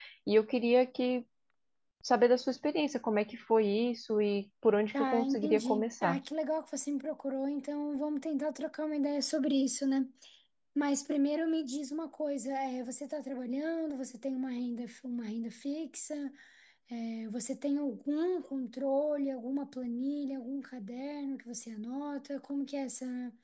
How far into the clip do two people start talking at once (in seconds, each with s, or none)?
4.9 s